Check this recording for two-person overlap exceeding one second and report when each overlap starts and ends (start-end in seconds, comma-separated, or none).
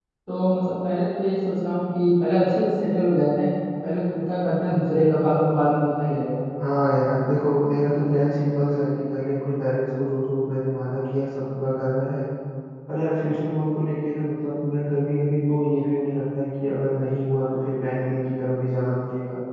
none